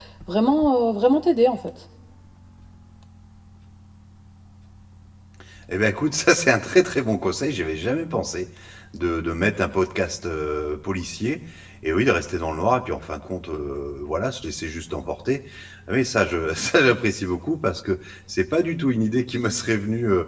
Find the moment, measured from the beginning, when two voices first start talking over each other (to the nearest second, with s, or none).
none